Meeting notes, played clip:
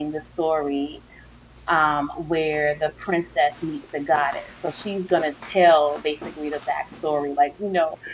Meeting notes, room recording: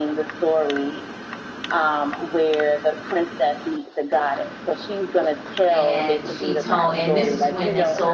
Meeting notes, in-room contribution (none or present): present